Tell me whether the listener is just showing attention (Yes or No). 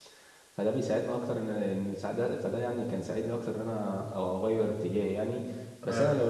Yes